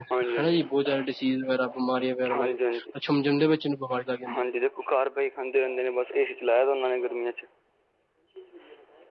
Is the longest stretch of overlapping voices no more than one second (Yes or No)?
Yes